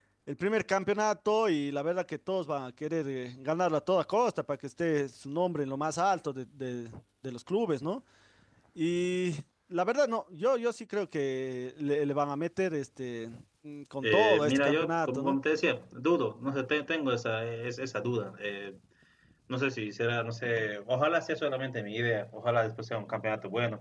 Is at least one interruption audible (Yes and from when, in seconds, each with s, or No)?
Yes, from 14.0 s